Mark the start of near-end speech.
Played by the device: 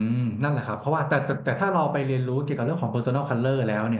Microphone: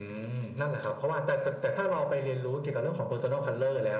none

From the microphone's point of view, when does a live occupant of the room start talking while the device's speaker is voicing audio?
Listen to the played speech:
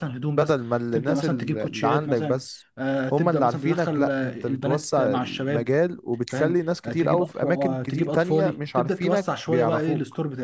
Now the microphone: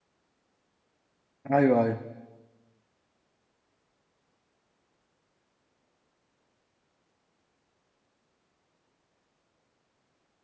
2 s

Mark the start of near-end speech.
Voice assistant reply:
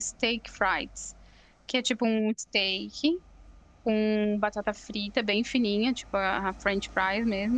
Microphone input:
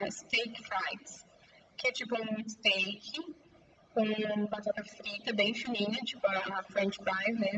none

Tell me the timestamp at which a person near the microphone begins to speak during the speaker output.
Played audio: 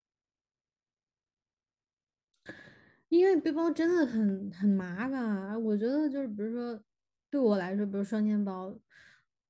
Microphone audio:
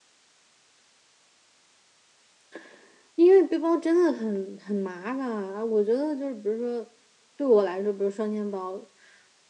none

